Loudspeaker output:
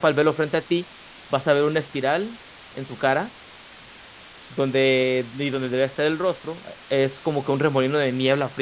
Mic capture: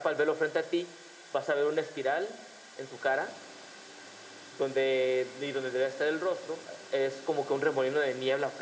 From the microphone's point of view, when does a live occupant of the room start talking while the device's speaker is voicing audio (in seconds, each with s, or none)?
none